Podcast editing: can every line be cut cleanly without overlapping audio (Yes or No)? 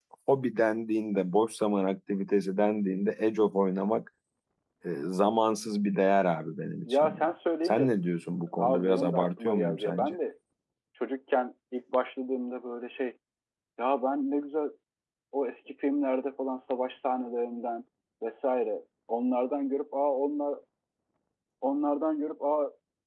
No